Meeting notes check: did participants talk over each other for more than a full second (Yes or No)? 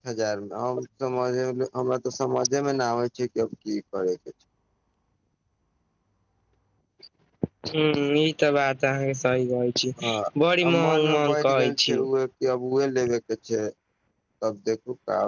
Yes